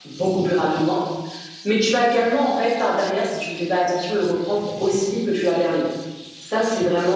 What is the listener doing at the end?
listening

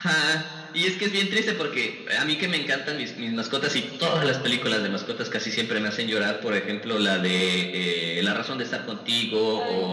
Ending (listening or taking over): listening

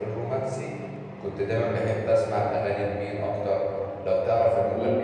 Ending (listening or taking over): listening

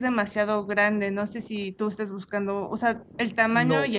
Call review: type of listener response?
taking over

